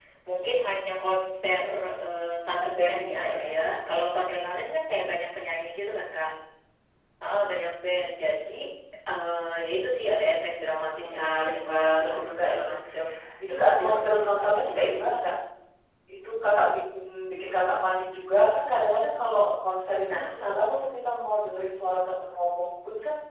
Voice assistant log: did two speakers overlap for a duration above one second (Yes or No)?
Yes